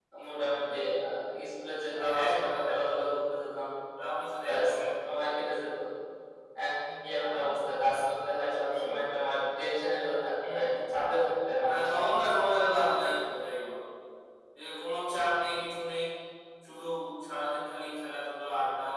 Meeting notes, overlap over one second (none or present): present